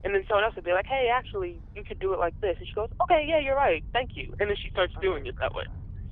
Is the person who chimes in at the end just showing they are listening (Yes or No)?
No